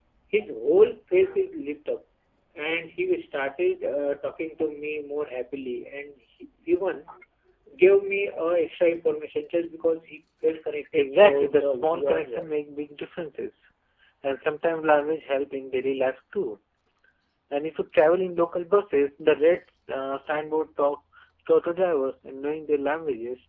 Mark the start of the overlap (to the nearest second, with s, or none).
11 s